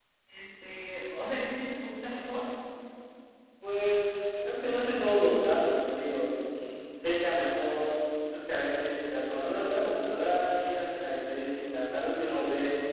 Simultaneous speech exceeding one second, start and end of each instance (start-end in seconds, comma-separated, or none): none